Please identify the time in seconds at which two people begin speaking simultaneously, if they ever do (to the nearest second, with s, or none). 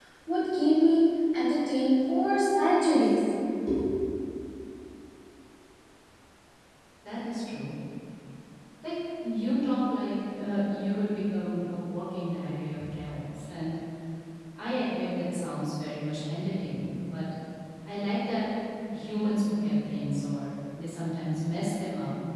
none